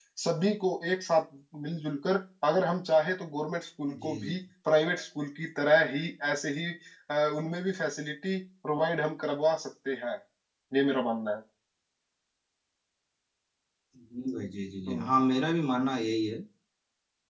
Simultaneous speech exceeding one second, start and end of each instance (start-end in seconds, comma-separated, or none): none